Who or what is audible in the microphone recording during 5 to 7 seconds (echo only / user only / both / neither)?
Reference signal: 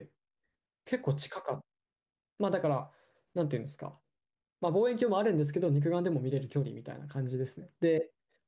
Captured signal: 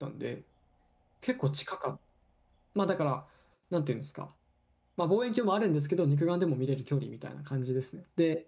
echo only